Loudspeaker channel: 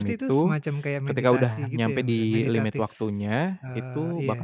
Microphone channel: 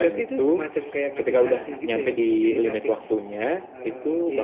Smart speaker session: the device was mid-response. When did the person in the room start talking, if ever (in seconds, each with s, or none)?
none